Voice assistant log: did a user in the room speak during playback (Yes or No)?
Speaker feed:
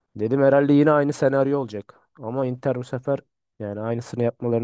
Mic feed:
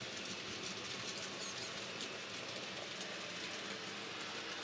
No